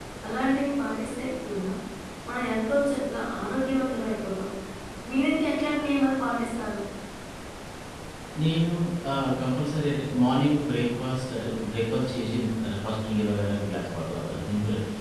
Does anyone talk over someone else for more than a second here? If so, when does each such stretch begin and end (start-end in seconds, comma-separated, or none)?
none